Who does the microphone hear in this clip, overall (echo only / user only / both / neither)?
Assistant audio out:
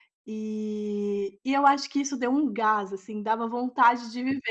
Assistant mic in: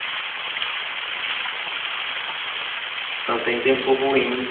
user only